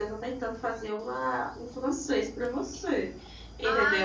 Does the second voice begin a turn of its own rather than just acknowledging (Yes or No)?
Yes